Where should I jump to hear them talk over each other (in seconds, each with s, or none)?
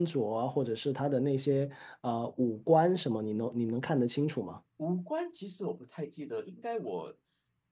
none